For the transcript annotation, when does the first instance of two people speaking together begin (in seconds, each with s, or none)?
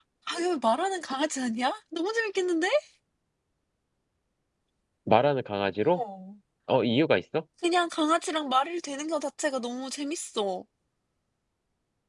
none